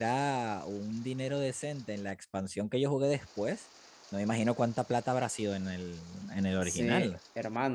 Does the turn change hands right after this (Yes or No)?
Yes